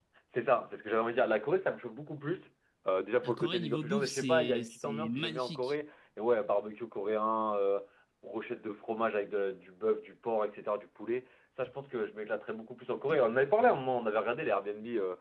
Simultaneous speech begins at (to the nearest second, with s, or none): 3 s